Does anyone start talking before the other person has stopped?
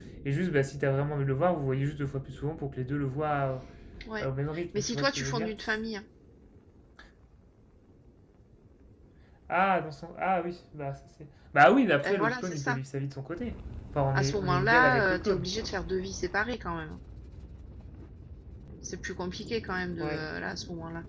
Yes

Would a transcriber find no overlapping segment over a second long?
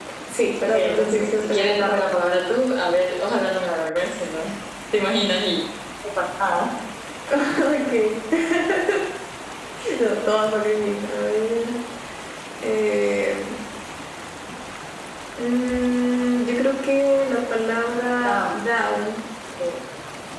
No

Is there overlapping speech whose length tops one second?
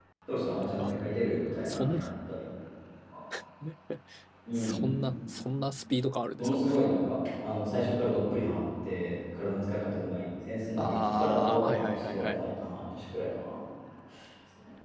Yes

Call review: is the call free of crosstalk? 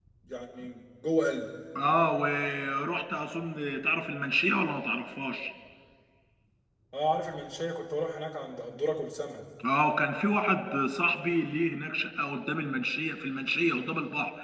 Yes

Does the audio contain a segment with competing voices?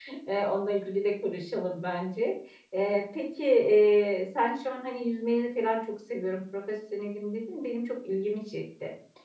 No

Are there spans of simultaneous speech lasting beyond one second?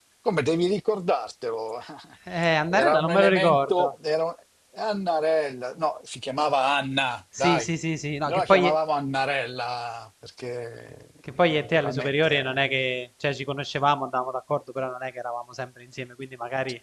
Yes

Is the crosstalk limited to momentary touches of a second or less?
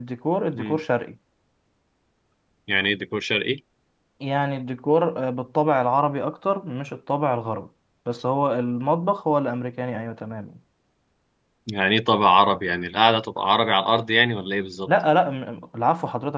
Yes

